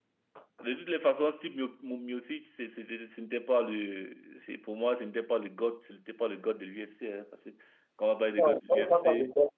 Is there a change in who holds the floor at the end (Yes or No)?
Yes